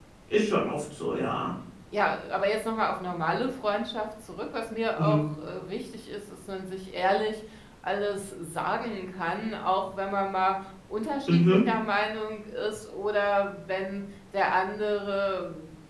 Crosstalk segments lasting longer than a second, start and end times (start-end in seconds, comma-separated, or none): none